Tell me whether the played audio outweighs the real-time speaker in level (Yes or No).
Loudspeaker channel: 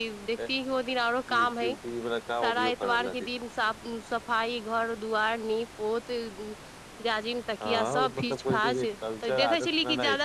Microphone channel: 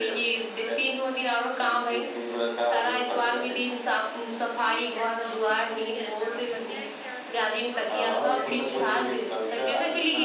Yes